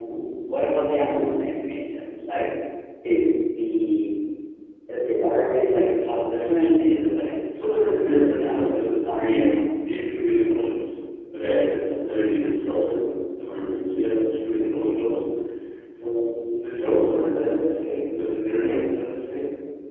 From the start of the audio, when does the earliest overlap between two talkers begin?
7.5 s

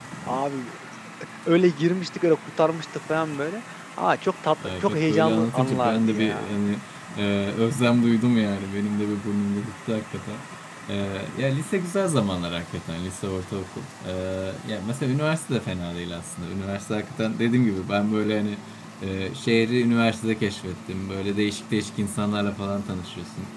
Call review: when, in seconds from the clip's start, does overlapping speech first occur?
4.6 s

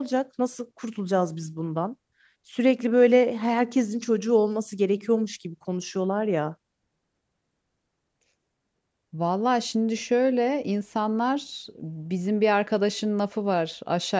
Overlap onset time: none

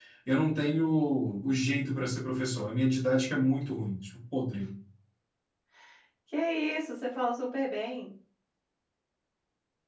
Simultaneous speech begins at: none

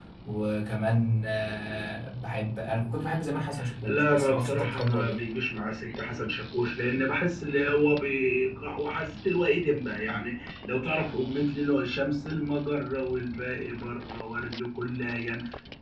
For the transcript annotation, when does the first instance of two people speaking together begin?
3.8 s

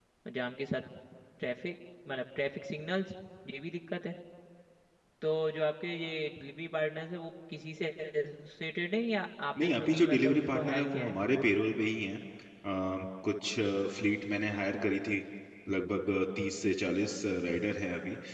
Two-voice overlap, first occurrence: 9.6 s

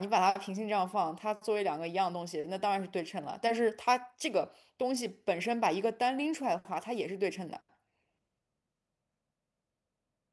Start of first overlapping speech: none

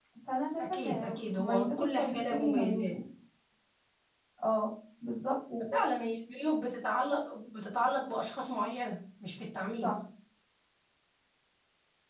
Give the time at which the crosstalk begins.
0.6 s

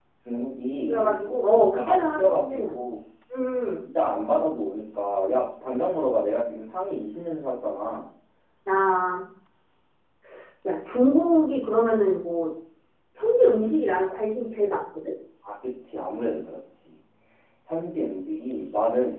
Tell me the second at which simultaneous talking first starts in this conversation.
0.9 s

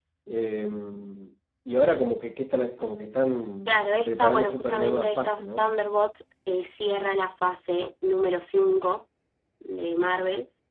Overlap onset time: 3.7 s

